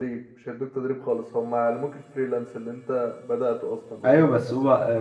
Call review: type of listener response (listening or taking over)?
taking over